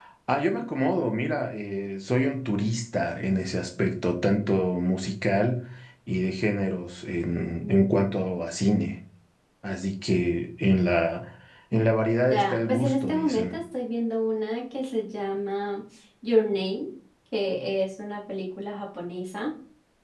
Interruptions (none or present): present